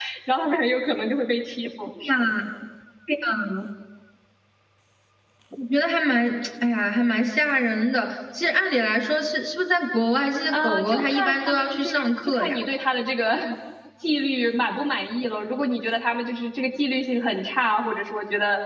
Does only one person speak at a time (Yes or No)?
No